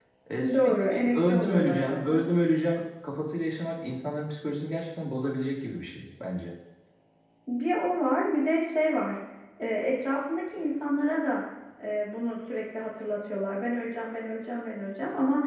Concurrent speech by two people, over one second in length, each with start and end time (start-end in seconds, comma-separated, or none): 0.5-2.2